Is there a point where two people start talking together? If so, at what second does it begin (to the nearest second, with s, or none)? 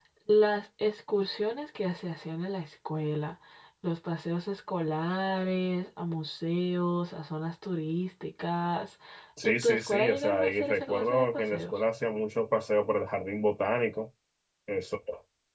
9 s